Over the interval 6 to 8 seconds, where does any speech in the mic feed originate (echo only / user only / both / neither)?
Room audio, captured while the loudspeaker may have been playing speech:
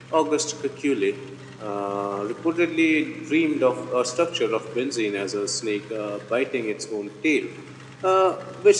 echo only